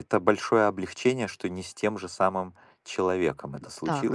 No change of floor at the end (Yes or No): No